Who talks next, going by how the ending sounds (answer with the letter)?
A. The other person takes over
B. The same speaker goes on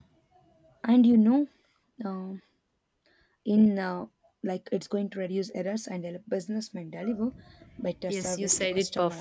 A